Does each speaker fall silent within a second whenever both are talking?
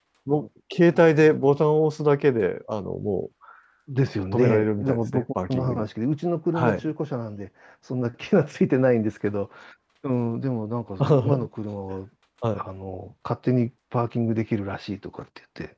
No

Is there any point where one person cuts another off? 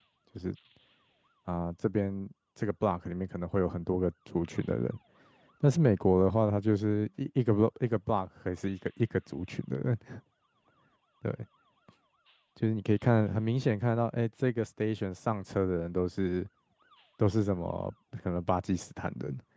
No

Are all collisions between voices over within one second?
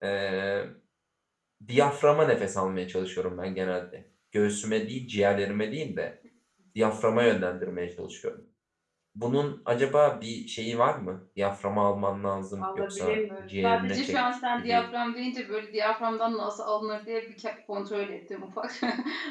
No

